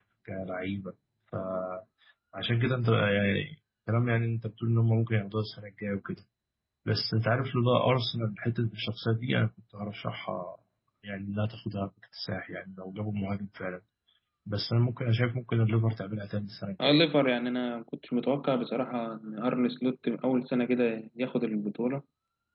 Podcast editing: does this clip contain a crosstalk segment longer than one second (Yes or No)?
No